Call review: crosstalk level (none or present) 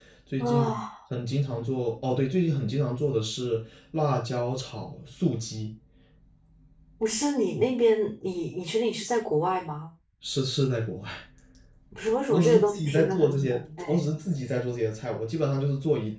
present